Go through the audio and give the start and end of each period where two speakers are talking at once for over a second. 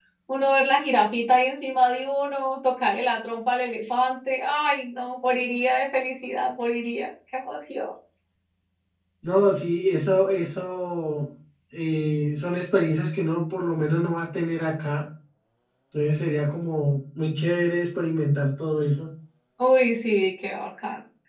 none

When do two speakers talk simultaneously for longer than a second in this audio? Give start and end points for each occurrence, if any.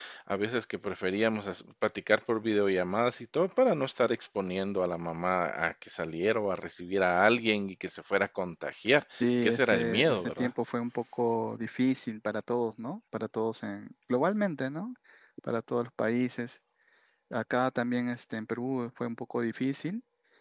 9.2-10.5

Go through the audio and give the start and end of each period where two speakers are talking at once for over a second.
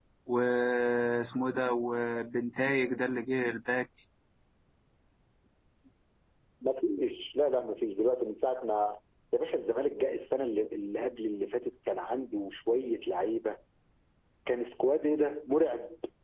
none

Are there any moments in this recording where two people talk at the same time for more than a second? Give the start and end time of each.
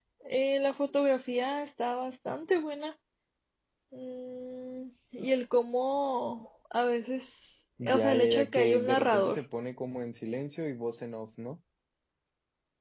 7.8-9.4

